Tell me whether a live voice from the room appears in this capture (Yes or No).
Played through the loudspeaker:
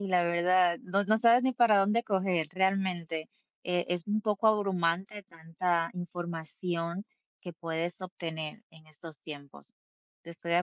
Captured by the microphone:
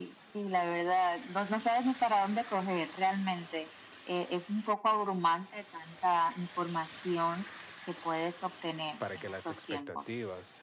Yes